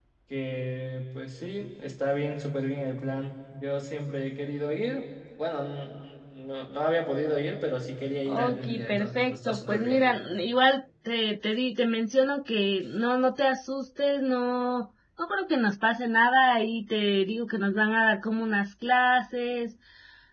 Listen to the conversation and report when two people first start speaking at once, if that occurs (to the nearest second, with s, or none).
8 s